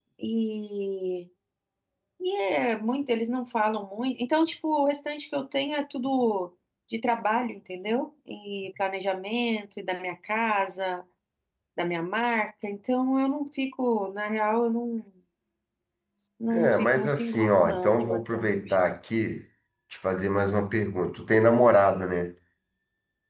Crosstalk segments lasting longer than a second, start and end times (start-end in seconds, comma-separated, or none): 16.5-18.5